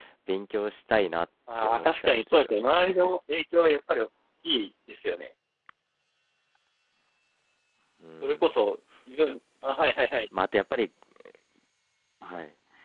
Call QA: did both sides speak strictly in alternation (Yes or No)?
No